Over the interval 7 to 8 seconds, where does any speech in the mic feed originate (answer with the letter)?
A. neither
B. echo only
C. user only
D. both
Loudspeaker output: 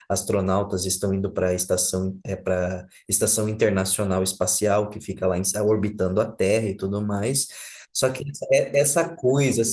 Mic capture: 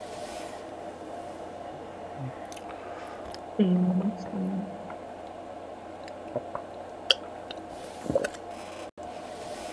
A